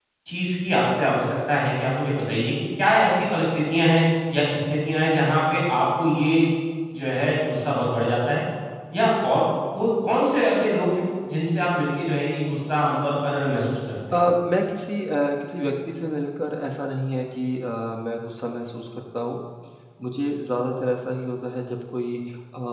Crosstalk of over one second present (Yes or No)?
No